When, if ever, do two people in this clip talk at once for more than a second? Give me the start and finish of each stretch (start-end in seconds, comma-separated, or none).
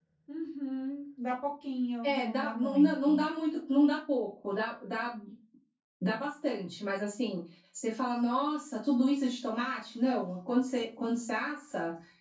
2.0-3.2